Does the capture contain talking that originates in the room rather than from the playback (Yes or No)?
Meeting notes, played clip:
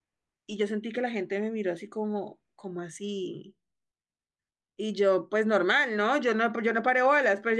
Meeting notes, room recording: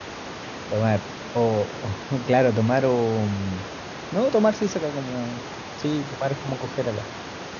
Yes